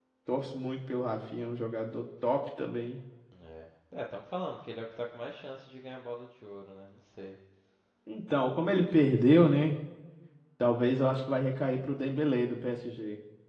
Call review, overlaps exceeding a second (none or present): none